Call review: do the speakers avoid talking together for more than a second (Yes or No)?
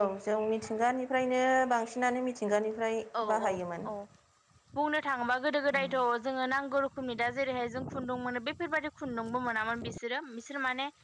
Yes